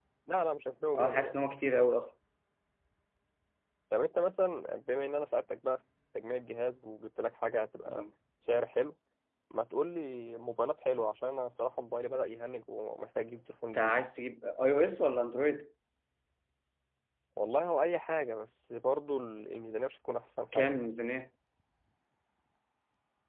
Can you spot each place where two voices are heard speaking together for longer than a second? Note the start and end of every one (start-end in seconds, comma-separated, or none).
none